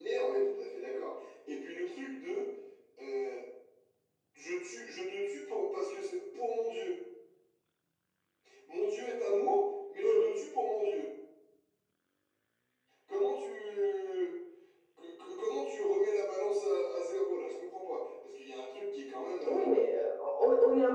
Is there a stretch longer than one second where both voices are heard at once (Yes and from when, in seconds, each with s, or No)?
No